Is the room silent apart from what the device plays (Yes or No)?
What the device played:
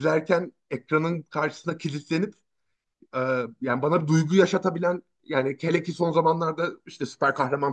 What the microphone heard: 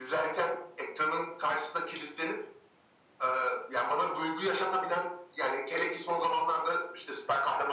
Yes